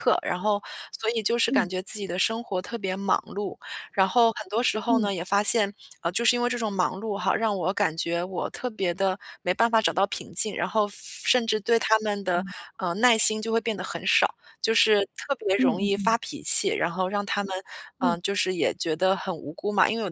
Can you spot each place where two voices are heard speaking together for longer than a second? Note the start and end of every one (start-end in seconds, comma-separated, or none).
none